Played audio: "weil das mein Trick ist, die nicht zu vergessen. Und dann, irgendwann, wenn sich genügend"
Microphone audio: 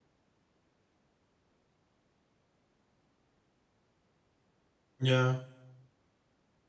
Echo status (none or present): none